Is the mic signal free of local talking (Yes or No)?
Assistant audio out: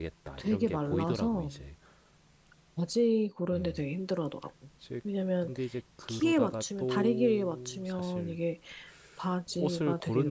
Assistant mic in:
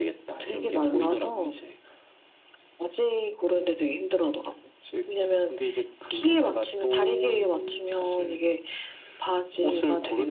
Yes